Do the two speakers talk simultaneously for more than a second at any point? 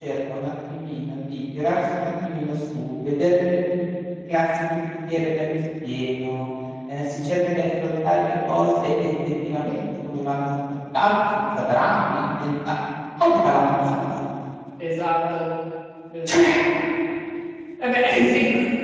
No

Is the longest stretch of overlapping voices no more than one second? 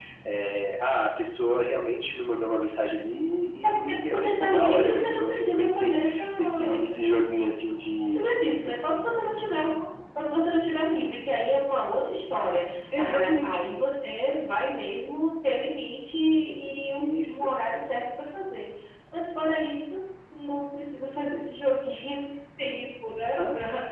No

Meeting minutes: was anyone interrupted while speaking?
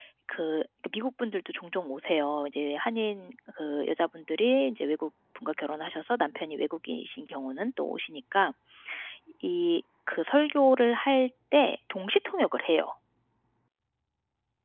No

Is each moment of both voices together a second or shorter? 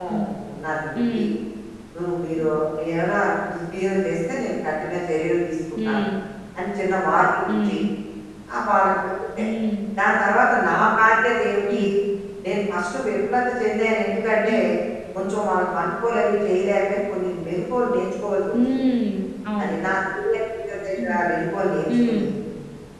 Yes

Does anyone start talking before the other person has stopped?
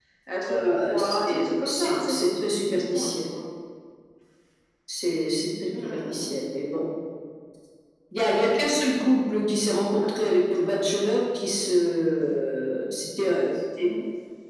Yes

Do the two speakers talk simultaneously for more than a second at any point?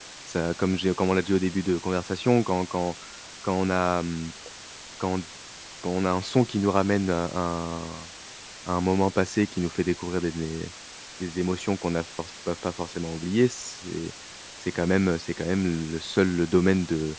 No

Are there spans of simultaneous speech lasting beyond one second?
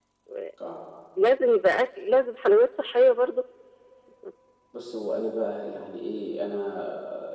No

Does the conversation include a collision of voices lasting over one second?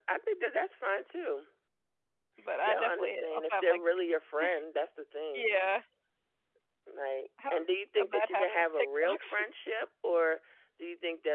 Yes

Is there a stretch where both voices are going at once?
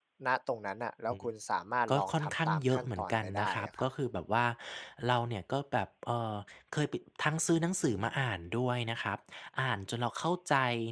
Yes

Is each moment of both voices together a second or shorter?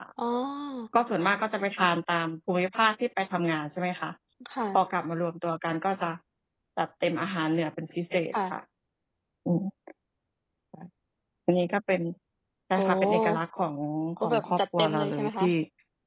No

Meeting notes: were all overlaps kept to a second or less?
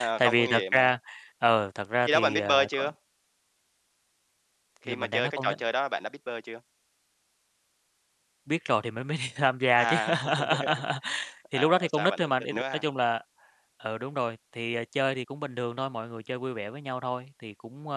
No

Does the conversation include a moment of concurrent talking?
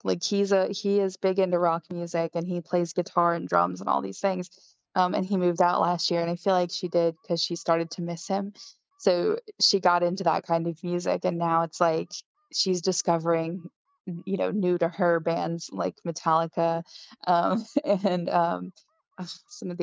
No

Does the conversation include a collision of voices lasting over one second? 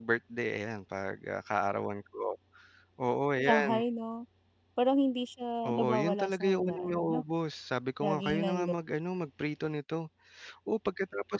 Yes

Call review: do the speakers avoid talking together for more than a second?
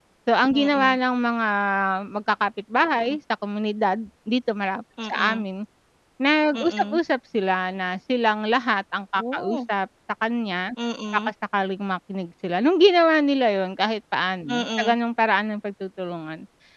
Yes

